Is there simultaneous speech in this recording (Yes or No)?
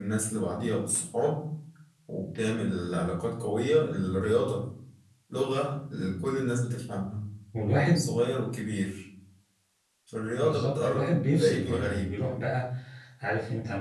Yes